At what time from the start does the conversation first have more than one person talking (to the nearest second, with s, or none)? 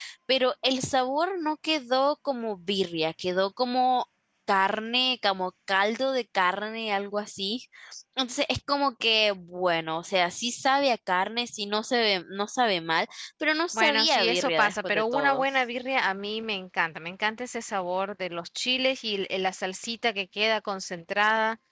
14 s